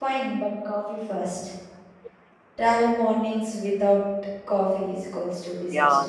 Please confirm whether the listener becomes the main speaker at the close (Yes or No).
Yes